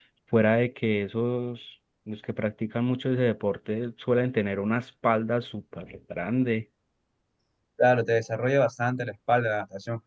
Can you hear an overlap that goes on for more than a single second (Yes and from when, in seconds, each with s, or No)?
No